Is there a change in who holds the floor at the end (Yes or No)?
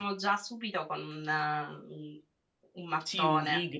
Yes